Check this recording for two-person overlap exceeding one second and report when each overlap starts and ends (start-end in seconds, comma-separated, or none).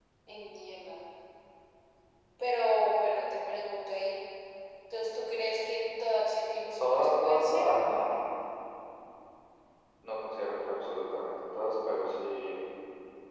6.8-8.1